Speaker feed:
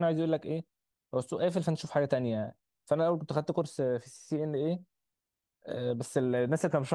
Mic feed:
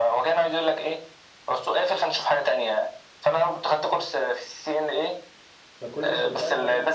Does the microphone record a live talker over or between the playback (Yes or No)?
Yes